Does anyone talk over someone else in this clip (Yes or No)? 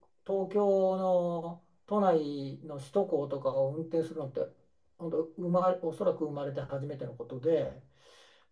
No